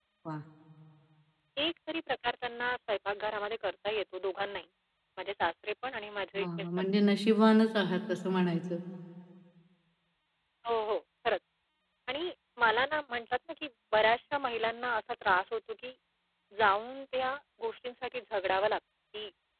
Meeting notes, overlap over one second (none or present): none